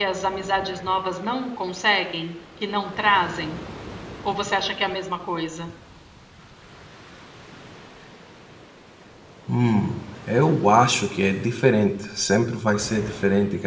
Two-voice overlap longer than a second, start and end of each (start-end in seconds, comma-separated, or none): none